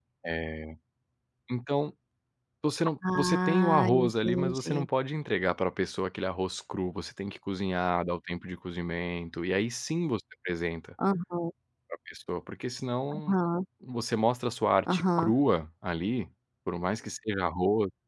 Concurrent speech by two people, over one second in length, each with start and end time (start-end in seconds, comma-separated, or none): 3.1-4.9